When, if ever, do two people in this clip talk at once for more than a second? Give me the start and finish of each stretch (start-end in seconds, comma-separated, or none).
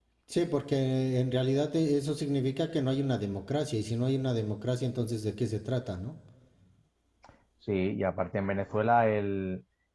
none